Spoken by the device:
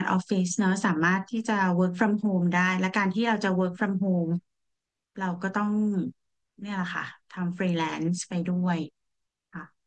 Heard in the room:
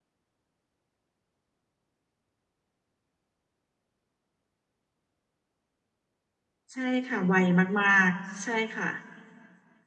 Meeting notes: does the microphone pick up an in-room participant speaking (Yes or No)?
Yes